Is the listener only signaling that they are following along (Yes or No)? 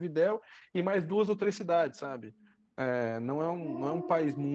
Yes